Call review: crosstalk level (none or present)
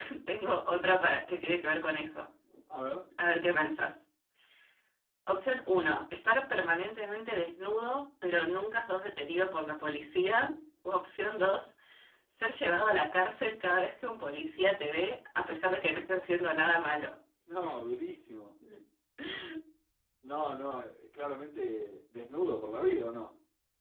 none